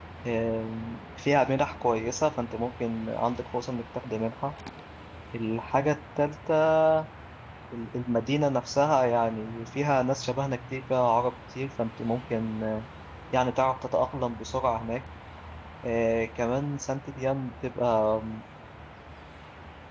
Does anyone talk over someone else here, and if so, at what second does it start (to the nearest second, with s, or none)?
none